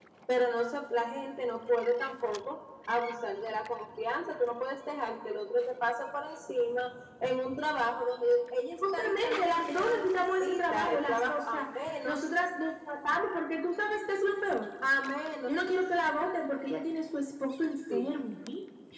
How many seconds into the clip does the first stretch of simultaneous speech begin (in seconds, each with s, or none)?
8.9 s